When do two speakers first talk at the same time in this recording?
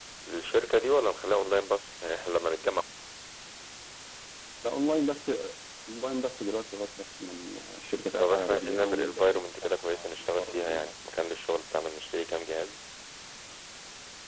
8.2 s

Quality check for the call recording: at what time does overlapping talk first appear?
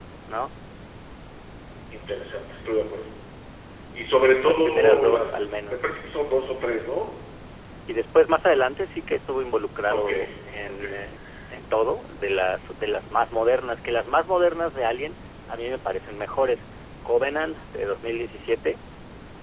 4.4 s

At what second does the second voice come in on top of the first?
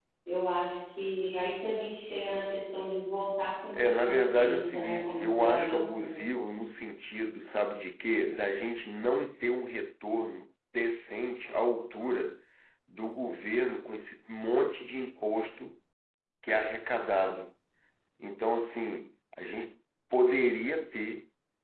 3.7 s

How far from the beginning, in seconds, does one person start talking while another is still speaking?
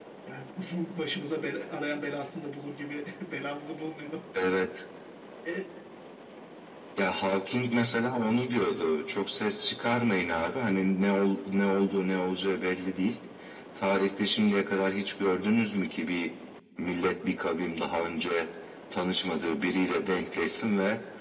none

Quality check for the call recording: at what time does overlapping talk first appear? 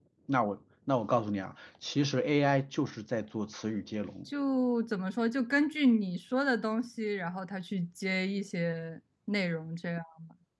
none

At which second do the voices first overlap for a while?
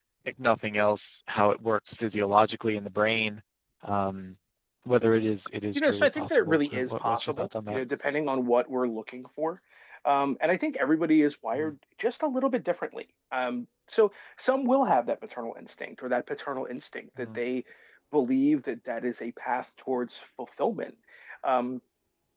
5.8 s

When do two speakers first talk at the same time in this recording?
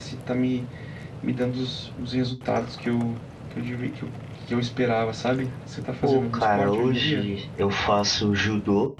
6.0 s

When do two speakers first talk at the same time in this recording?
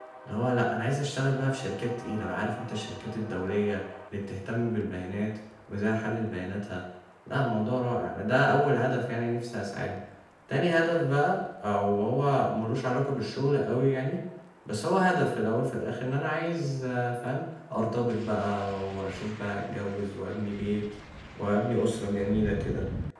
none

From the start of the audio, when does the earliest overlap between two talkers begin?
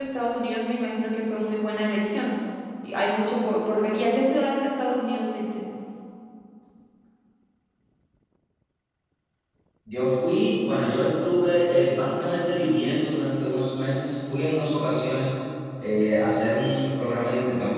none

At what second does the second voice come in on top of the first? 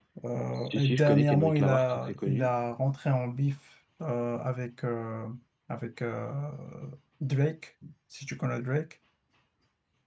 0.6 s

